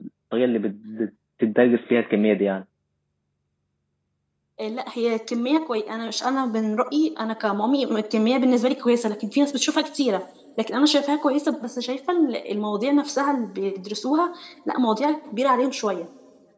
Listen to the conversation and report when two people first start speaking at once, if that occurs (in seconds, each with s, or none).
none